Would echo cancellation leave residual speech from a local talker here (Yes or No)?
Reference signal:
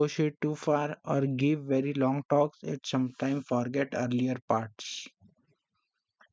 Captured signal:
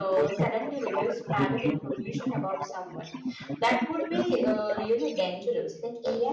Yes